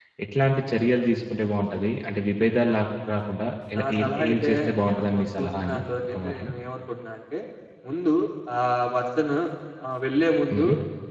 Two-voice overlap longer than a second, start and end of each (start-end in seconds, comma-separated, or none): 3.8-6.5